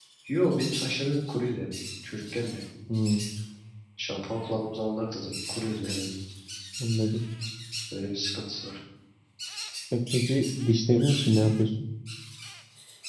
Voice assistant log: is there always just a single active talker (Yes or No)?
Yes